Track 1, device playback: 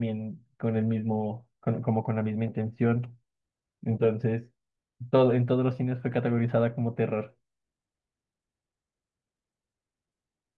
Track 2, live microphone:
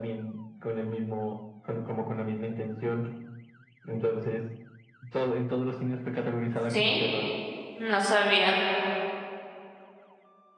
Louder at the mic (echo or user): user